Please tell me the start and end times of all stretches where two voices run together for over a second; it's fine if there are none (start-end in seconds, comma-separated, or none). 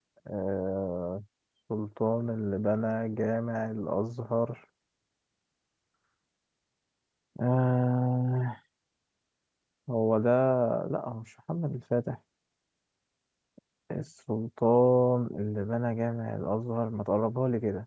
none